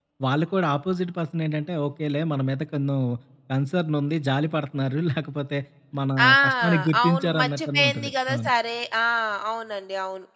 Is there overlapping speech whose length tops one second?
Yes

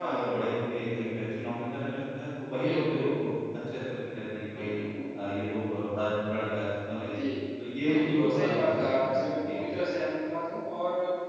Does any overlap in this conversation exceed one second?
Yes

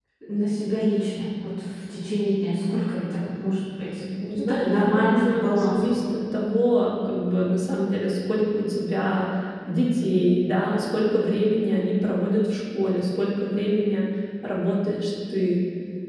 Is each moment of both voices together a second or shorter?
No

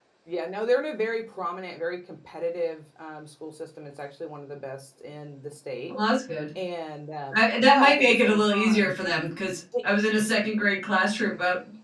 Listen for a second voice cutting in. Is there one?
Yes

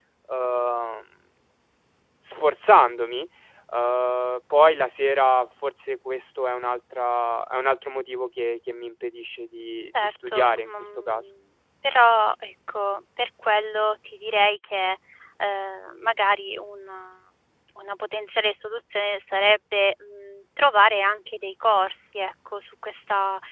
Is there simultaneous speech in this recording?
Yes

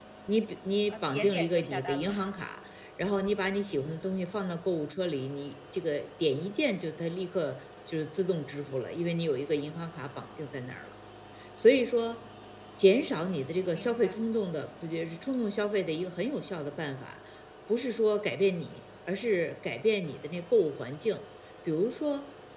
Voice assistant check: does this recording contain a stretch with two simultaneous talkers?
Yes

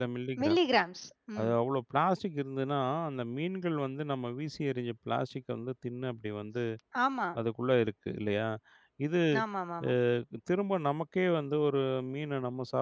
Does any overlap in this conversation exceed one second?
No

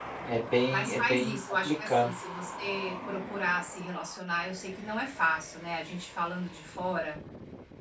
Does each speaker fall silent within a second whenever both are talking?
No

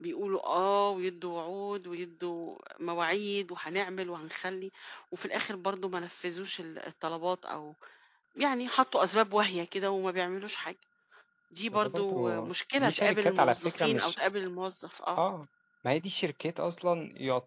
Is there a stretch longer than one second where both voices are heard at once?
Yes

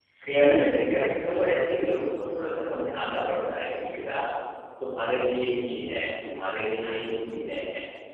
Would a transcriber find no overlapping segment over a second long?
No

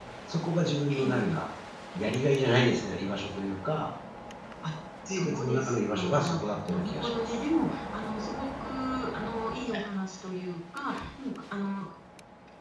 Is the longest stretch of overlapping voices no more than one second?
No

